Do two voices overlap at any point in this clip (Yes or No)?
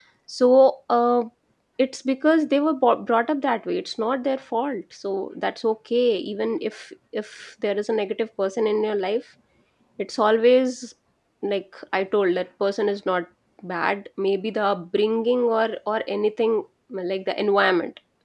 No